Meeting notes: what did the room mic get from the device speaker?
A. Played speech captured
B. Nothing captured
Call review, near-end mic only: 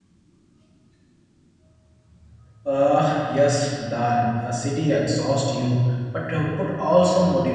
B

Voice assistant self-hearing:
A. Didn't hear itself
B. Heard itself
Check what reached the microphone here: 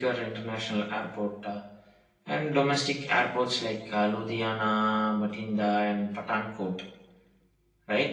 B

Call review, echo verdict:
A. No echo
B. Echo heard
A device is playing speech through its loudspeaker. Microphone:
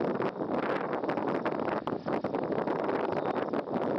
A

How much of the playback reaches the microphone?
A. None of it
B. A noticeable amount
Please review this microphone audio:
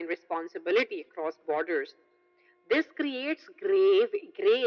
B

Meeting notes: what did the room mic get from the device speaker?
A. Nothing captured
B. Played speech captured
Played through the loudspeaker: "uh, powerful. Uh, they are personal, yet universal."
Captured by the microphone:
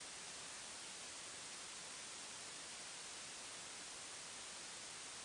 A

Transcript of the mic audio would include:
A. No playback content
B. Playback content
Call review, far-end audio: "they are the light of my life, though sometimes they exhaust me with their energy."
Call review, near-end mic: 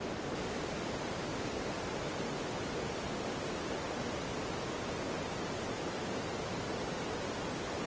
A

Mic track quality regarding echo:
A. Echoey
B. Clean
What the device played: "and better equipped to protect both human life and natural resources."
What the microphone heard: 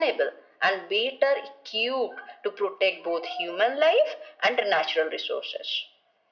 A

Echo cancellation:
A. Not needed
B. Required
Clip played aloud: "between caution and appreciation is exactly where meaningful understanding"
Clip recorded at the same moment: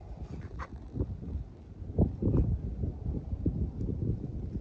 A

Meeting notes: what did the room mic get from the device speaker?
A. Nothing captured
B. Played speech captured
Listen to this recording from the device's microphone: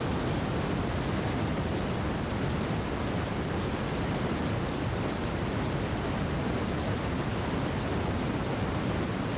A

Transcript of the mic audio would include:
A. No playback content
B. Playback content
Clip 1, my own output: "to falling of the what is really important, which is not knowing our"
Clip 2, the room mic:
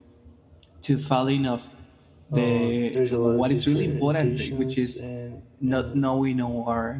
B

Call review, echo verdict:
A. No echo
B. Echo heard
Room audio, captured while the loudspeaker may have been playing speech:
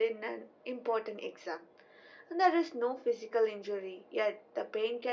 B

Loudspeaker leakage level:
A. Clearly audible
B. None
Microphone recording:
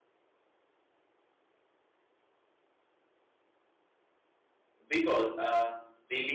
B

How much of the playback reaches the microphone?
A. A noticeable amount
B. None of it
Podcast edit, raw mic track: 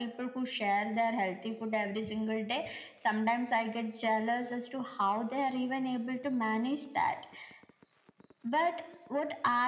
A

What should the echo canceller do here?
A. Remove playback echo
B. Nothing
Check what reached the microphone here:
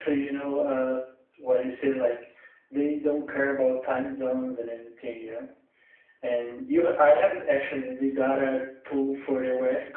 B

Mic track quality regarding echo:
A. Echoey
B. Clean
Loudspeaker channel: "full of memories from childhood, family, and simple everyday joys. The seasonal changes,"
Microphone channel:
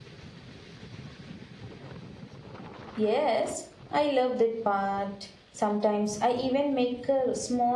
B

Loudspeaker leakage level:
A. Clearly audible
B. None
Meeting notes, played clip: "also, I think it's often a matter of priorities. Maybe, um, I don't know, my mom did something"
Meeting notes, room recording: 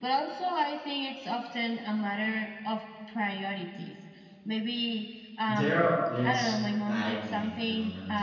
A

